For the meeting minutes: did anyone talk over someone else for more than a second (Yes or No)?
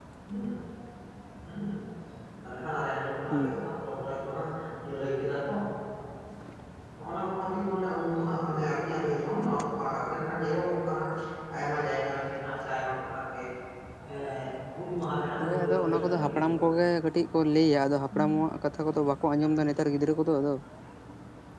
Yes